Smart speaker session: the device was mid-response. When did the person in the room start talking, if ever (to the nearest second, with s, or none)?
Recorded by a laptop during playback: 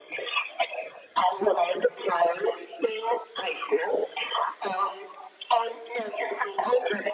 none